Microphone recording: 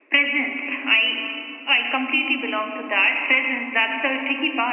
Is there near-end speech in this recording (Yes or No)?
No